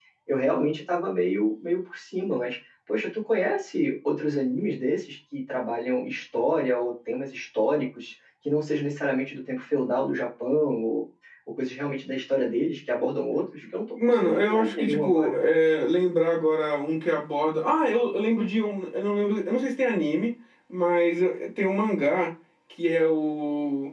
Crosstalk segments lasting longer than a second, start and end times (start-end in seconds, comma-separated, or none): 14.1-15.4